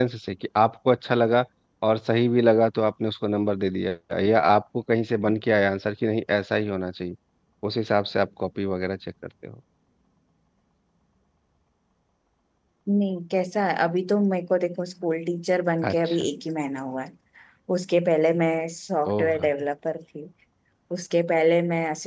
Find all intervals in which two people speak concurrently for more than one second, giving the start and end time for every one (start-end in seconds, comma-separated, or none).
none